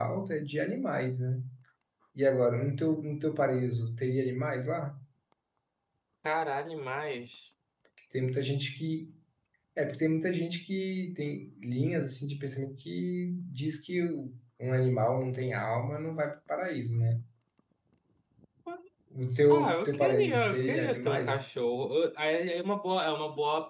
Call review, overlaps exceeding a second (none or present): present